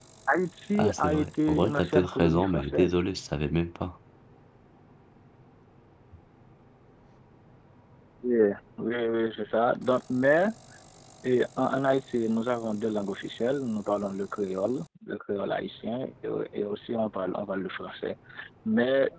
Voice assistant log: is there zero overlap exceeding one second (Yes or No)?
No